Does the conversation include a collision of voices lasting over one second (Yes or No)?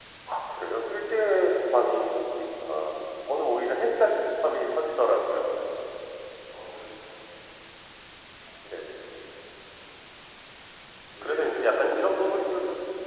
Yes